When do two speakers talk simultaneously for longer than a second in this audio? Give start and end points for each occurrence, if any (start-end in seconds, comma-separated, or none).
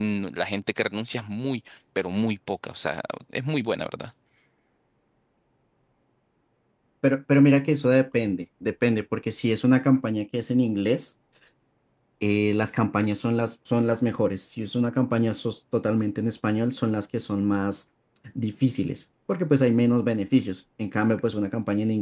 none